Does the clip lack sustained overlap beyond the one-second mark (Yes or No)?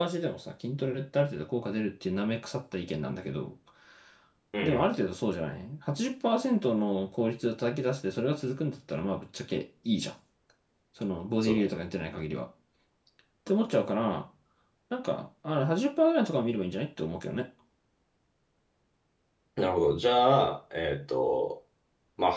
Yes